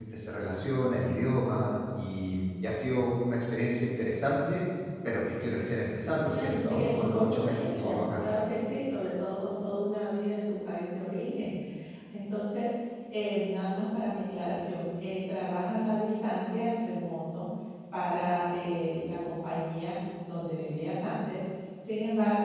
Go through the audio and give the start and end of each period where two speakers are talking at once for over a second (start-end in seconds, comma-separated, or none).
6.2-8.2